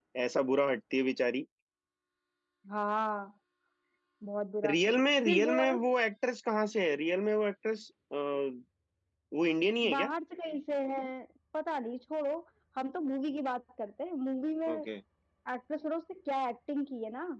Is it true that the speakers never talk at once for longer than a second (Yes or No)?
Yes